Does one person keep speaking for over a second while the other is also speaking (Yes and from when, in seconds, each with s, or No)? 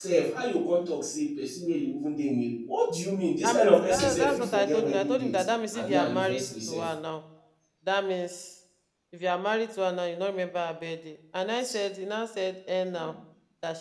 Yes, from 3.4 s